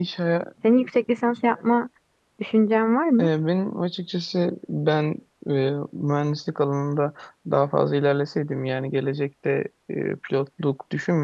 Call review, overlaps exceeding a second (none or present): none